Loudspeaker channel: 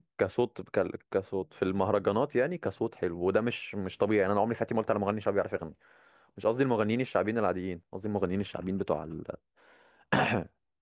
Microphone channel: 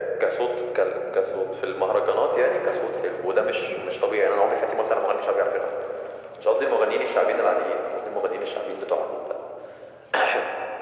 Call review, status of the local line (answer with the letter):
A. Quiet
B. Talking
A